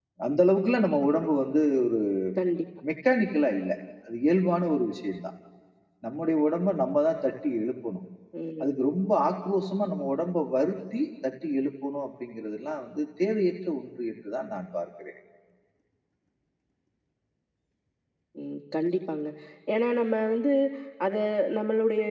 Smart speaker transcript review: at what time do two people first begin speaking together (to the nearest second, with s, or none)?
none